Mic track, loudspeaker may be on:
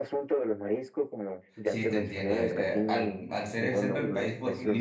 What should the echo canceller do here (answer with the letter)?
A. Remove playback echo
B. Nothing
A